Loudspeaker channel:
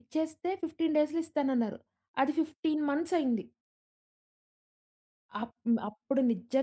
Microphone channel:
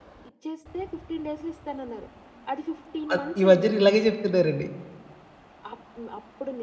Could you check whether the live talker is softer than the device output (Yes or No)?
No